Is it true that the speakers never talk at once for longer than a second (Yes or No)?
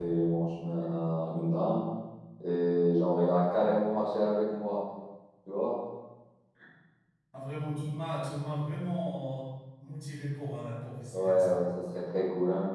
Yes